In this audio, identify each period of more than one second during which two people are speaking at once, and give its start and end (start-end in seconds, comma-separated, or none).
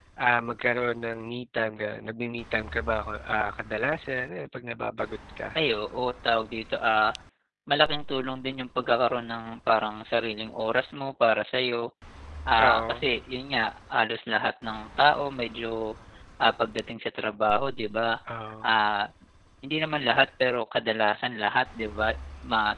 none